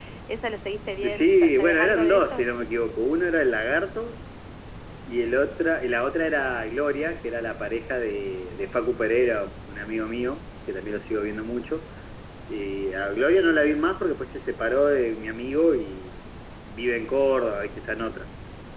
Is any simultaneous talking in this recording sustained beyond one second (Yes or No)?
Yes